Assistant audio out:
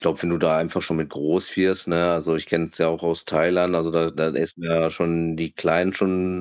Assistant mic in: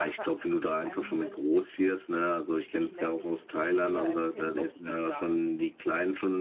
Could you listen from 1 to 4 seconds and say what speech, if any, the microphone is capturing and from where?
both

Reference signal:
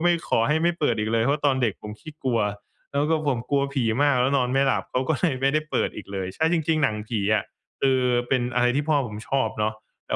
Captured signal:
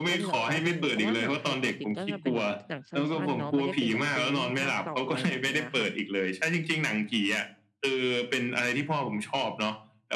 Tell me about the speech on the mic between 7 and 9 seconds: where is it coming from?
echo only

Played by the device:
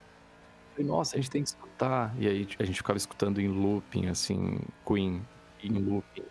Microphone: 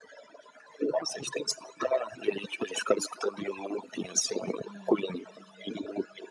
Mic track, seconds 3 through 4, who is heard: echo only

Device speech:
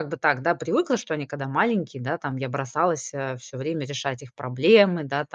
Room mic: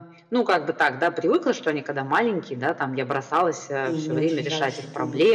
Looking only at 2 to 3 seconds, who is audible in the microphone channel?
echo only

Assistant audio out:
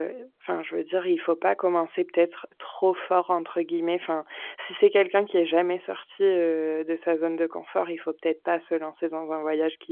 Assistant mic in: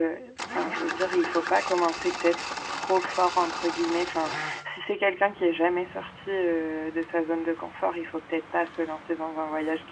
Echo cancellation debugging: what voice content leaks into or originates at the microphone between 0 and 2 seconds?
echo only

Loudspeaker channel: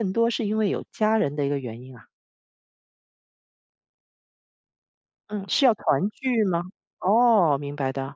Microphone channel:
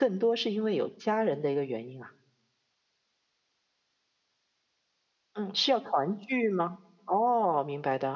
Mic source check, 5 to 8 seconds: echo only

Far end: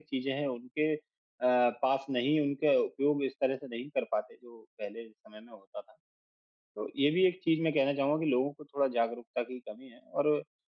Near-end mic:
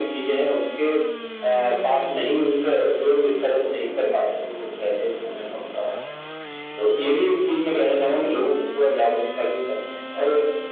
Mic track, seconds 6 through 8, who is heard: echo only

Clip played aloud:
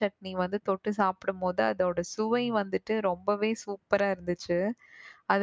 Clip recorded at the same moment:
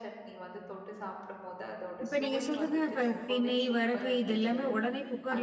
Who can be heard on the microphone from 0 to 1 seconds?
echo only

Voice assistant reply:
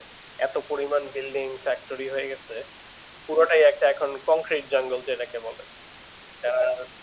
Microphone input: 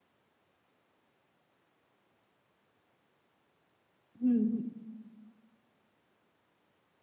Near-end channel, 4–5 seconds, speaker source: user only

